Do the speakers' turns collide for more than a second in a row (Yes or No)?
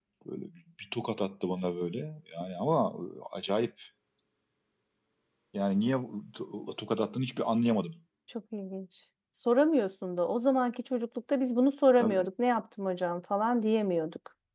No